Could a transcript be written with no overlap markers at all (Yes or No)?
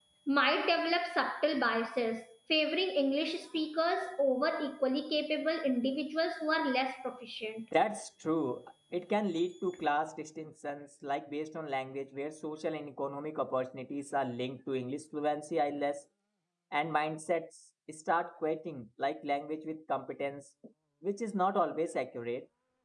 Yes